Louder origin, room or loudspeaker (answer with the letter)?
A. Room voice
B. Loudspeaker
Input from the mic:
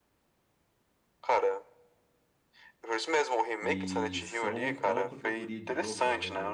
B